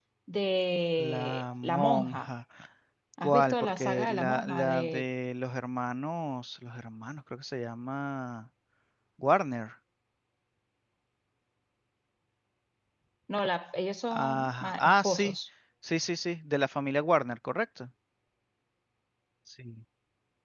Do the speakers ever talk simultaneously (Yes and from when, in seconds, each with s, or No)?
Yes, from 1.0 s